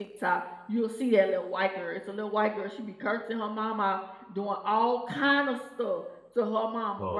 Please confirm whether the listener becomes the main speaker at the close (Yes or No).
No